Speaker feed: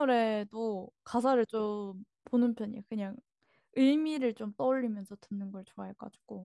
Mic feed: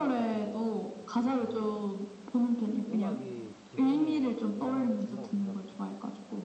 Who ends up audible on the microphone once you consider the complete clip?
both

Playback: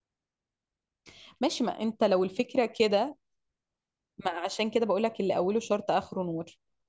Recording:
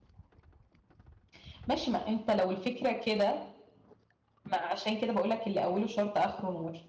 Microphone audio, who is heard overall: echo only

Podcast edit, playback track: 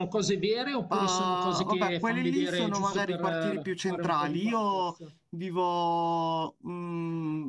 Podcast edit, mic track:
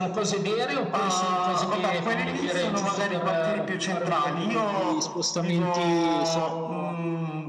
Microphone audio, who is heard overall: both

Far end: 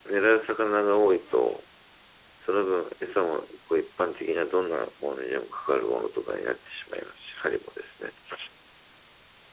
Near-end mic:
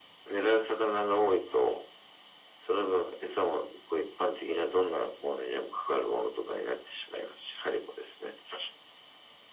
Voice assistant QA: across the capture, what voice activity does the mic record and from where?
echo only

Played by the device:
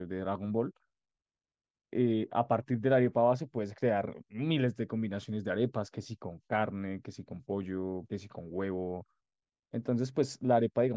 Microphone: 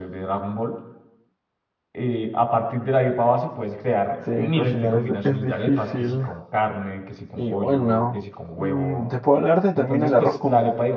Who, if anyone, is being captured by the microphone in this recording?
both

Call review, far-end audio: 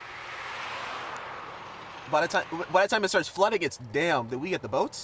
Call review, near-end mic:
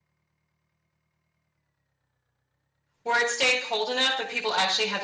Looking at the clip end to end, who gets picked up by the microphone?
user only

